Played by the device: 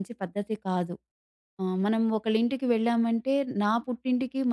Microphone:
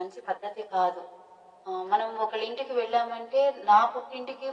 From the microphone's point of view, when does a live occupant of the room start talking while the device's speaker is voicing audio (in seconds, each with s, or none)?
none